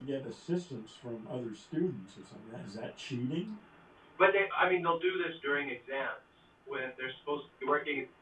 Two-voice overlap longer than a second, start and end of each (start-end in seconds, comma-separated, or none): none